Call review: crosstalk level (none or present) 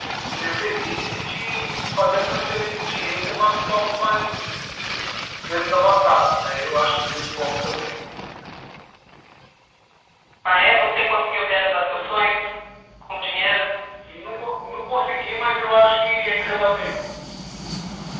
none